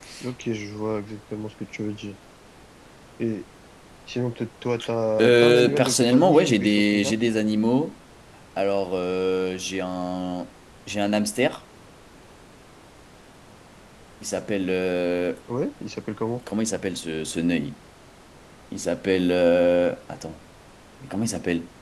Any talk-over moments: Yes, from 5.2 s

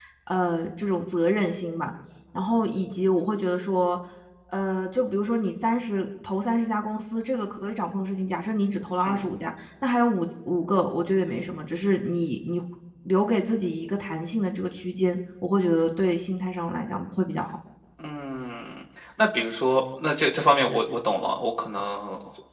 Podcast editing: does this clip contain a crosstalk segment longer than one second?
No

